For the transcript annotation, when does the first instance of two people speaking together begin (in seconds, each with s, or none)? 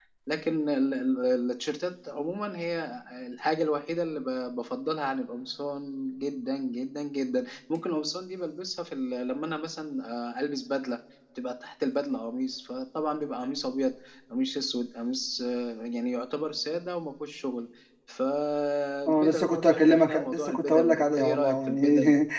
19.1 s